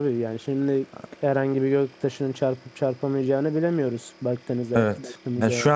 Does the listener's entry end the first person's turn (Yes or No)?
Yes